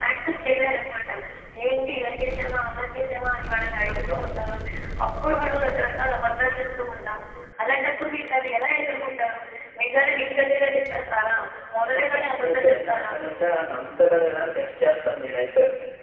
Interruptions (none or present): present